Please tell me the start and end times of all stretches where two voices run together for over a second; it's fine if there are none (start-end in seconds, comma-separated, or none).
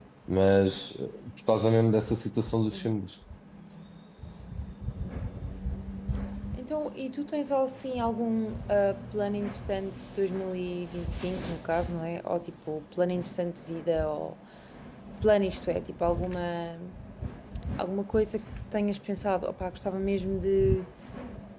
none